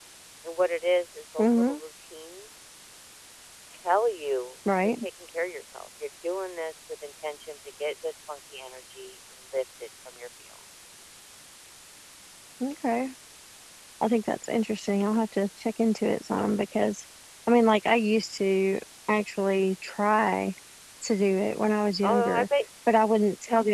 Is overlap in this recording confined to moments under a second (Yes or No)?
Yes